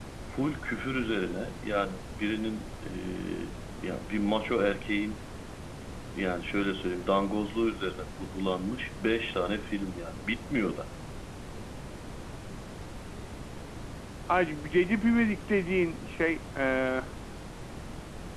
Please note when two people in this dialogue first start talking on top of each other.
none

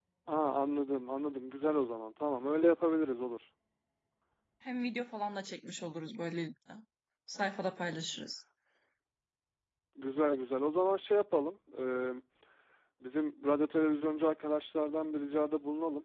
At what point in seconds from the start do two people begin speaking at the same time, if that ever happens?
none

